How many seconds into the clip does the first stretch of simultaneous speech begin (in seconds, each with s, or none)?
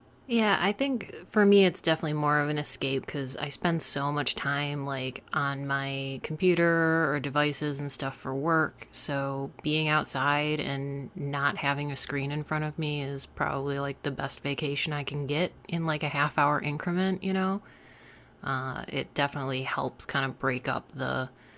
none